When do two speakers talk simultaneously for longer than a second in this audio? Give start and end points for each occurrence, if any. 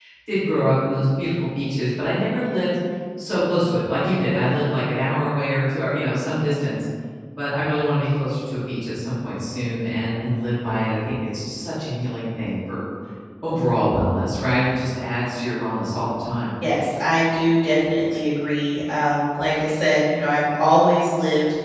none

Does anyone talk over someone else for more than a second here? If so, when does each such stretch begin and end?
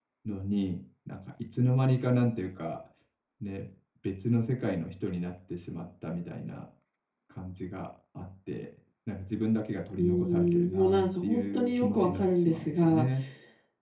10.0-13.1

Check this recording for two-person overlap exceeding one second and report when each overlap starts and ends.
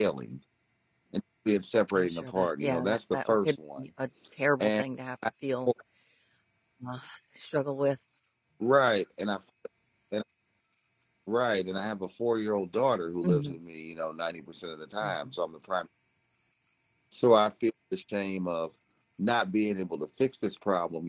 1.9-3.9

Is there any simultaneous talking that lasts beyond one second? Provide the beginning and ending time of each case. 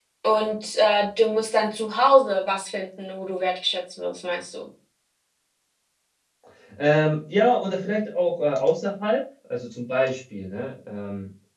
none

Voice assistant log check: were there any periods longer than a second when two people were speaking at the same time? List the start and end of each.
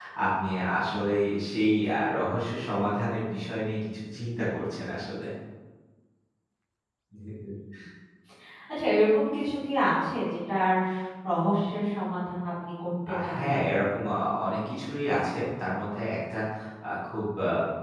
none

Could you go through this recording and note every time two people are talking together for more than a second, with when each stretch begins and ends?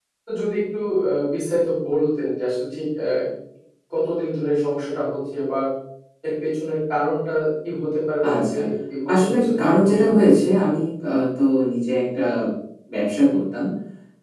9.1-10.7

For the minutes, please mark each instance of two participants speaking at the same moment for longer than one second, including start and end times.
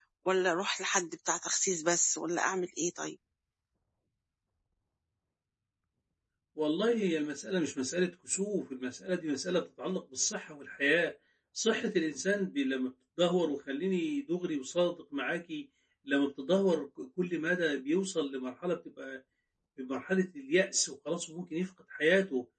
none

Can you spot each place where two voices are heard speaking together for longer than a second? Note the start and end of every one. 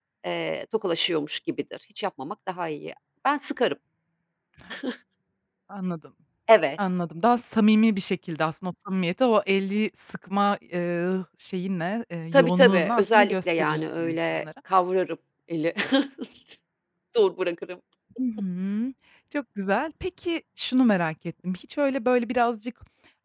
12.3-14.4

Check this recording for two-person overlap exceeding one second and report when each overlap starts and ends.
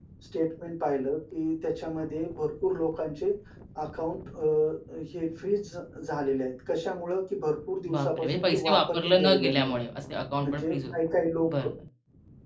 7.9-9.7

